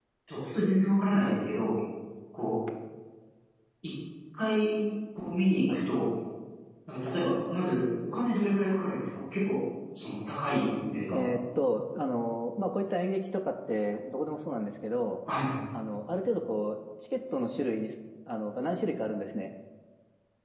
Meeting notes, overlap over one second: none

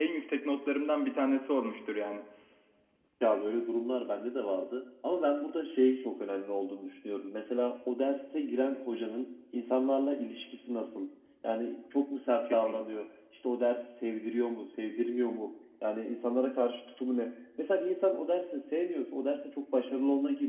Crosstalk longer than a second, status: none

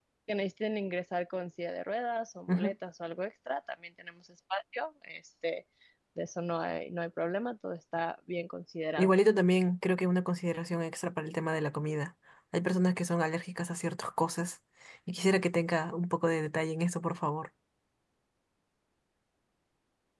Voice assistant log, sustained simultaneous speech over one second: none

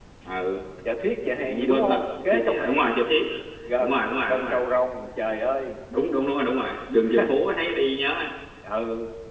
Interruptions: present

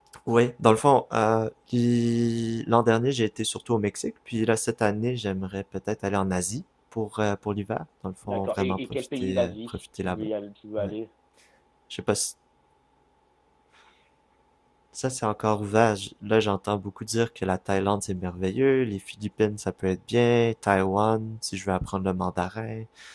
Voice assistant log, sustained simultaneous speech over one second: present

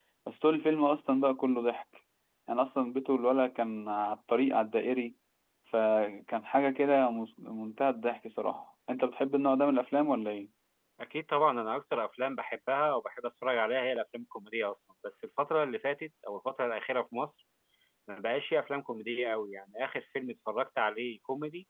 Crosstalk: none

